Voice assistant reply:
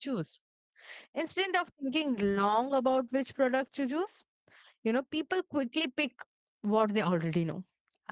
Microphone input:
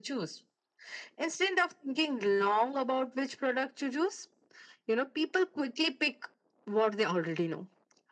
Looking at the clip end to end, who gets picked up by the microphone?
echo only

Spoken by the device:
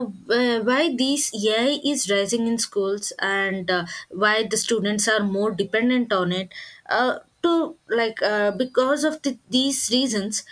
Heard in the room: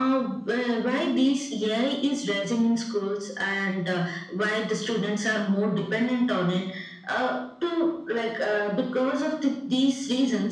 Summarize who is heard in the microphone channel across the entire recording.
echo only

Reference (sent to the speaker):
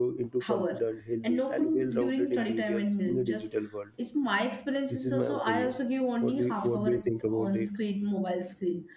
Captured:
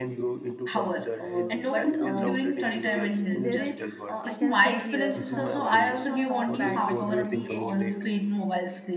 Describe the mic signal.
both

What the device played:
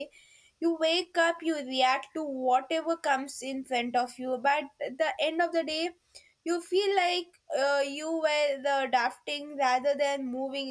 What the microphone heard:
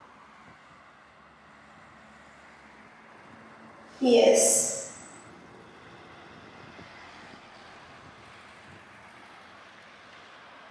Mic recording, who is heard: user only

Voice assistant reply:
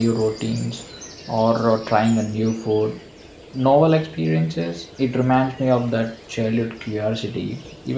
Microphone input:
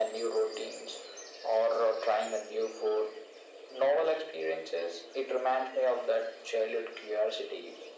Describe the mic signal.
echo only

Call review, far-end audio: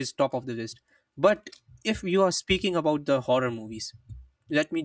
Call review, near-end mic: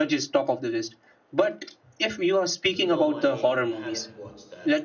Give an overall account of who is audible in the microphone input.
both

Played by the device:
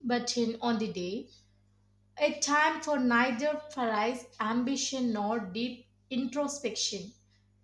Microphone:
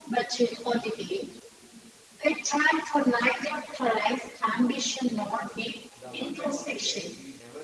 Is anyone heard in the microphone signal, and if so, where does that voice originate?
both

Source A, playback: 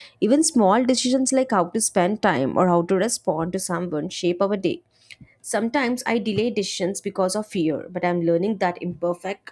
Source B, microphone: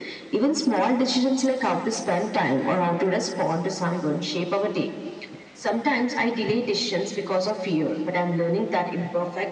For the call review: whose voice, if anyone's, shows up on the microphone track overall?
echo only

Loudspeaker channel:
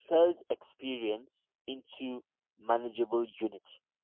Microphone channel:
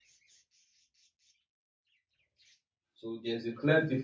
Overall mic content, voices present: user only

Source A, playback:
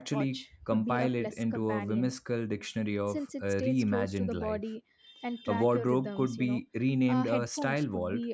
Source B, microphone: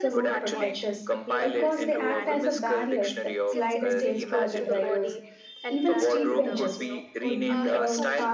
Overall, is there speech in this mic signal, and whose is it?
both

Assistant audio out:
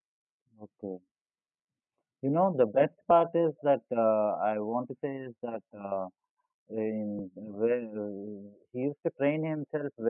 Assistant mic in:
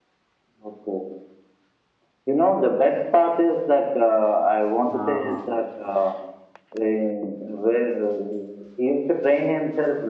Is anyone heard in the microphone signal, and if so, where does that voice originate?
both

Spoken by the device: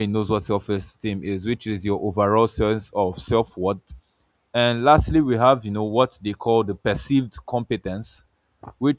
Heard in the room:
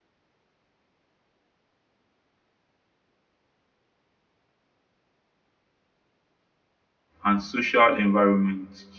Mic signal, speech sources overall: user only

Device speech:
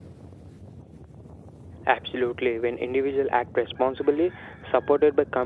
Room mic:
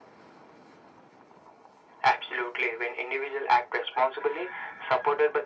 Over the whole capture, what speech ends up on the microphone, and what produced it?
echo only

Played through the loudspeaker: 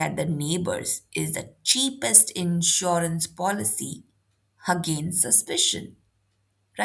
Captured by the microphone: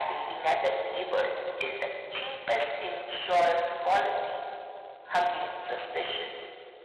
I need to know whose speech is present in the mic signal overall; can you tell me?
echo only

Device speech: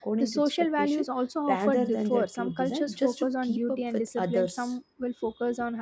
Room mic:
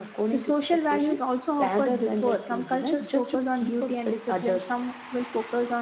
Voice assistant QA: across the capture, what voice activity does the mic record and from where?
echo only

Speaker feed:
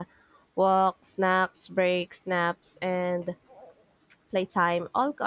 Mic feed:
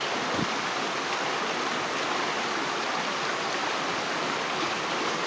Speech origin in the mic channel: neither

